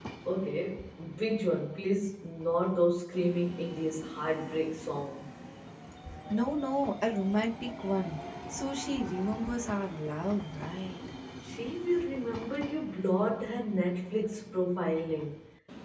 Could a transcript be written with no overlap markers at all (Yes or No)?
Yes